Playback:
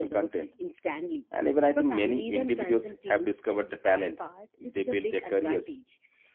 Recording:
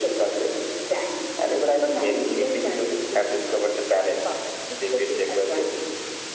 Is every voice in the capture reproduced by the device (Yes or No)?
Yes